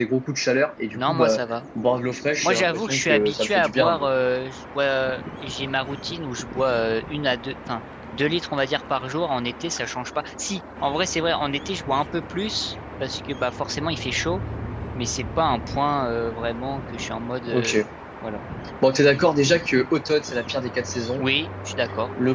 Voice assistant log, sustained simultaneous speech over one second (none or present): present